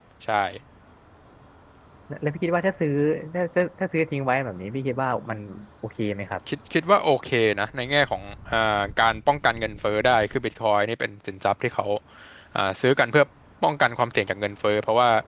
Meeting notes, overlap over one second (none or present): none